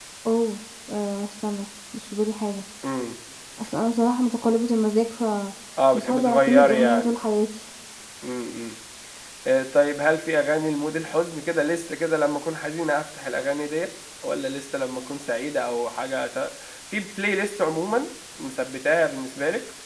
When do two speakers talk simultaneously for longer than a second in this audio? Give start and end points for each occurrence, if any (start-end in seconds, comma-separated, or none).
5.9-7.1